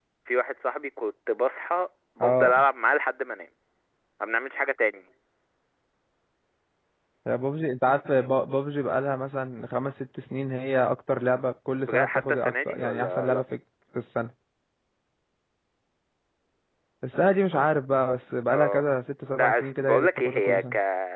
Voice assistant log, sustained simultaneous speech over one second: present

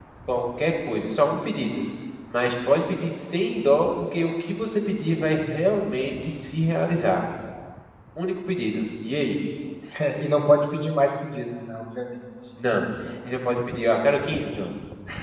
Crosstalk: none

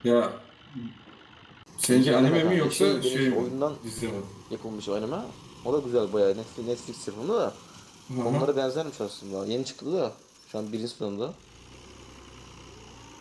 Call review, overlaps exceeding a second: present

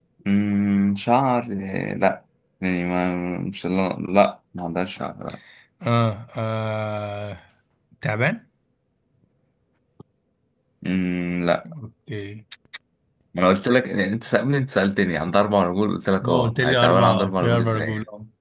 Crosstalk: present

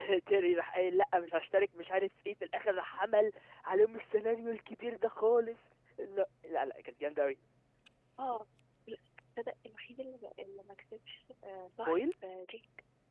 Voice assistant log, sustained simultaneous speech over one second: none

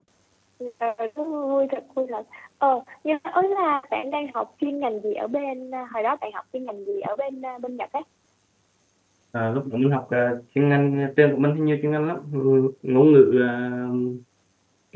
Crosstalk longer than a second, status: none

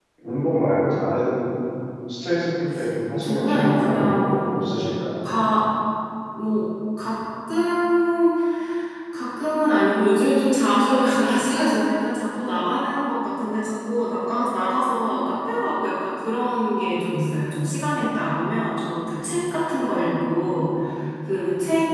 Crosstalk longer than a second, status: present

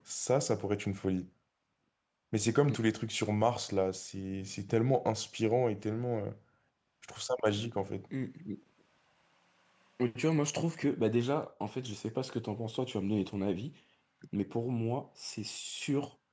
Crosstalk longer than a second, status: none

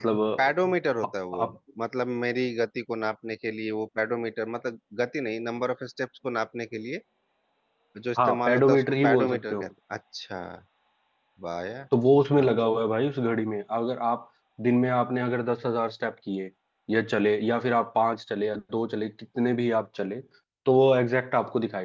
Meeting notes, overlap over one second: present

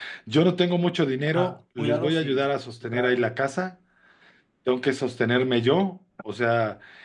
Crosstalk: present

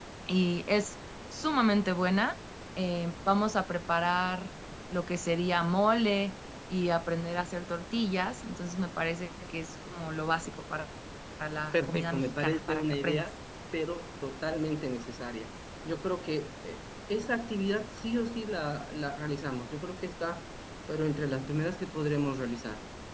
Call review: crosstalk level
present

